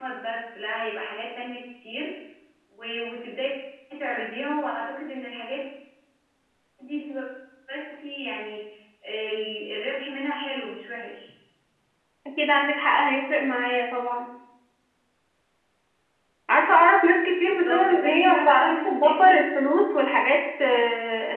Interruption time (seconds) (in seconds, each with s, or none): 17.5 s